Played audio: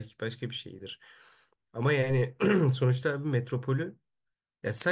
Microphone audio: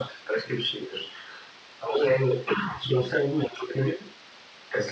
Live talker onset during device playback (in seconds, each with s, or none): none